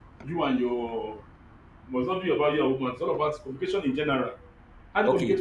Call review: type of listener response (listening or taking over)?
taking over